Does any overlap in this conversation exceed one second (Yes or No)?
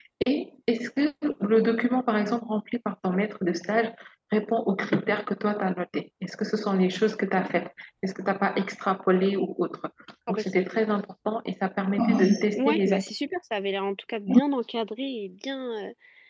No